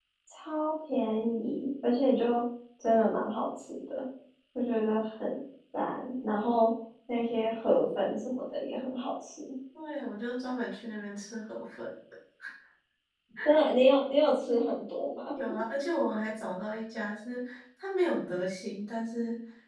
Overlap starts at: none

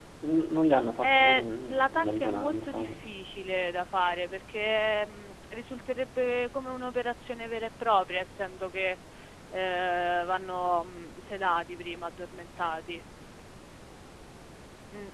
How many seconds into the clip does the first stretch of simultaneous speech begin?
1.0 s

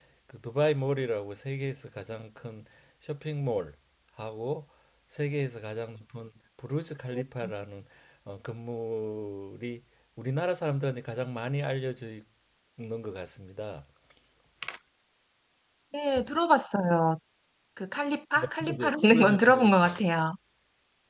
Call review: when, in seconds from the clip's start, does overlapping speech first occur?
18.4 s

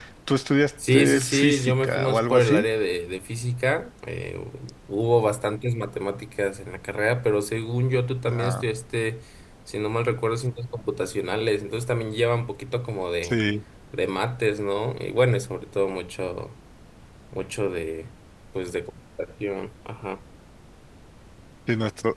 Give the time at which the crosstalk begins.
0.9 s

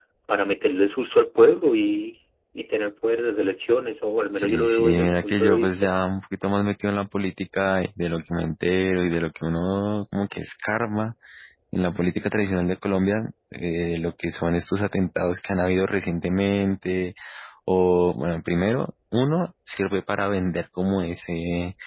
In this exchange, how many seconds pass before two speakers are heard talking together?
4.4 s

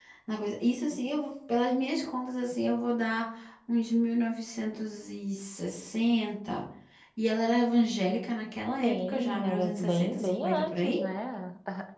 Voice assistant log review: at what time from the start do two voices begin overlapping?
8.8 s

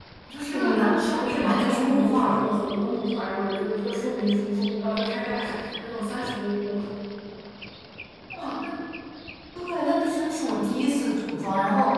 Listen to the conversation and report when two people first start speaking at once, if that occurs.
0.5 s

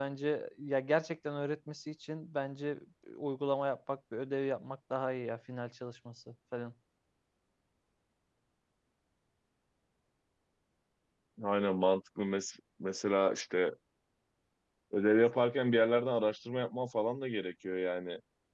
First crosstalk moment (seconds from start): none

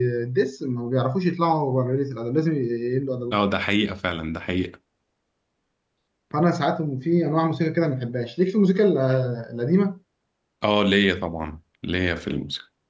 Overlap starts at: none

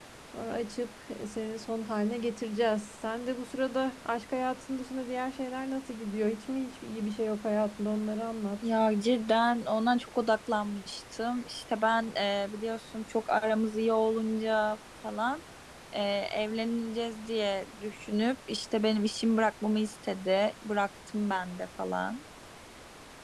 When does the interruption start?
none

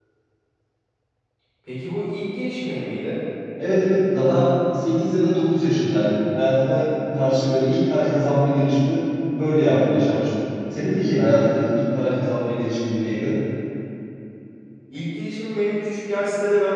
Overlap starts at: none

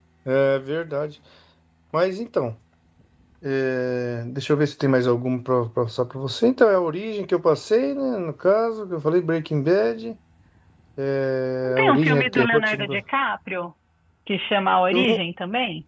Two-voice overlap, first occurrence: 11.6 s

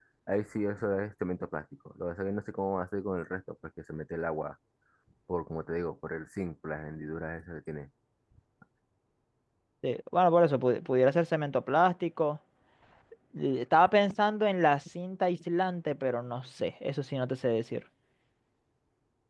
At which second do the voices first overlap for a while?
none

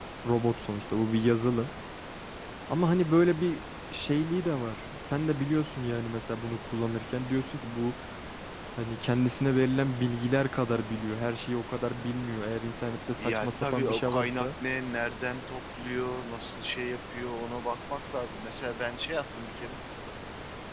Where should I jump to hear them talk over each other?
13.2 s

